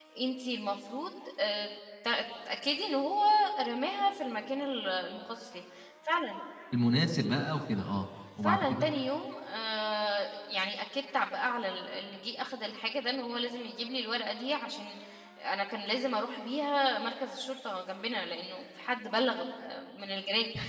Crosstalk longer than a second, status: none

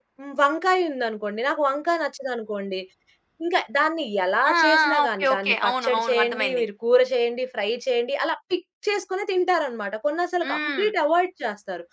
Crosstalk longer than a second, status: present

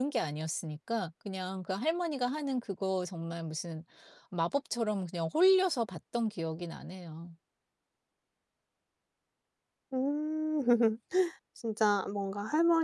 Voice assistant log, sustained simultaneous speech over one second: none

